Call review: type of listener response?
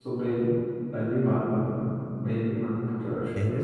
taking over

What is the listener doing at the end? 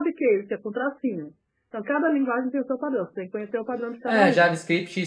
taking over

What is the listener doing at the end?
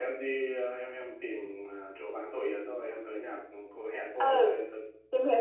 taking over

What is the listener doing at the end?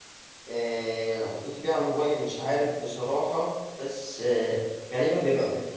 listening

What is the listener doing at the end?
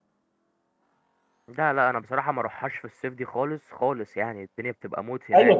taking over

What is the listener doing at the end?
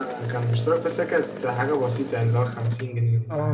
taking over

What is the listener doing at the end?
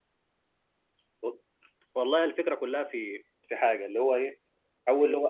listening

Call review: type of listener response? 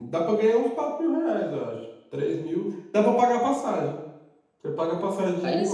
listening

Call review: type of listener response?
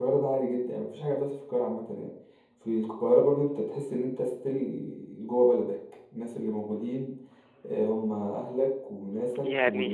taking over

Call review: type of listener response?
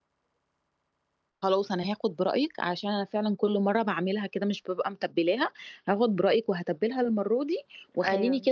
listening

